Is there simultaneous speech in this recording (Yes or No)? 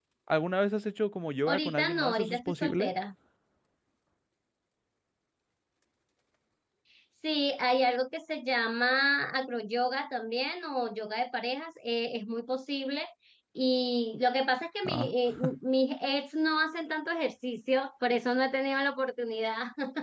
Yes